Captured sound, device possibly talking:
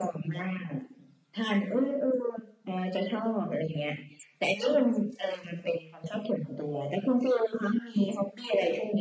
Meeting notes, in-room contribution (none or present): none